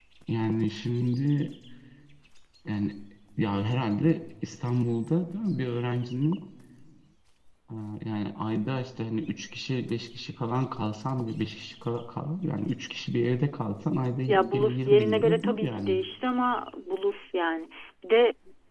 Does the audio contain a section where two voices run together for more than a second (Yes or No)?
Yes